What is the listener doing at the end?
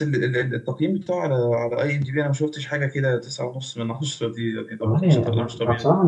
taking over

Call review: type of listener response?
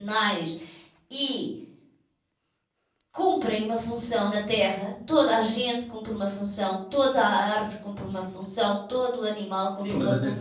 taking over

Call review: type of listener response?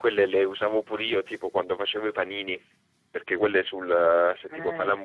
listening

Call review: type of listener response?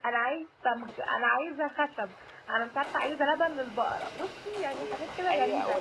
taking over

